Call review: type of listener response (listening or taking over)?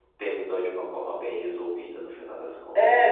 taking over